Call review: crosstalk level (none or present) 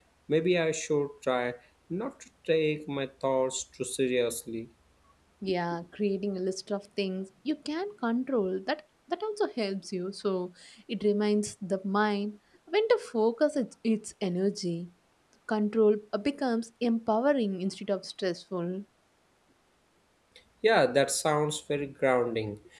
none